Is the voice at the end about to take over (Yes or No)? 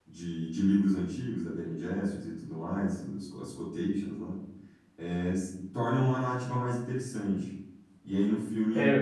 No